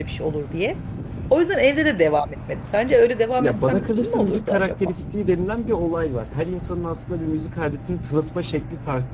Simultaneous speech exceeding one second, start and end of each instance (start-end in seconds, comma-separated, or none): 3.4-4.9